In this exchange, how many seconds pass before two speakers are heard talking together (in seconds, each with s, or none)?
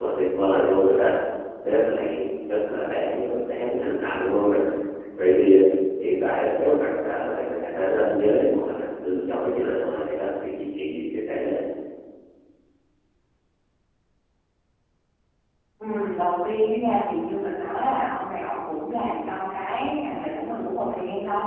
none